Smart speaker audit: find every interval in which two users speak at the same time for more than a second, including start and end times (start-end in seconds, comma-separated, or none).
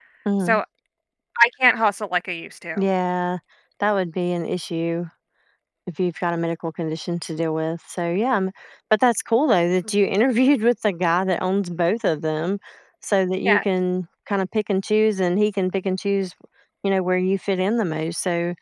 none